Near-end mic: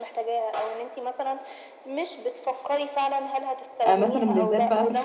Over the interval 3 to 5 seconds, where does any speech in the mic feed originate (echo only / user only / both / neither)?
both